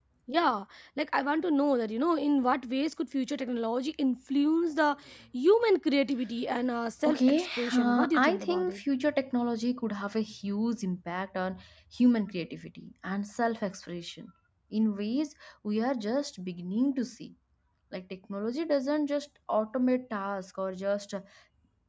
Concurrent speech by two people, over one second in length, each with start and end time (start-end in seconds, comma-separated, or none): 7.1-8.8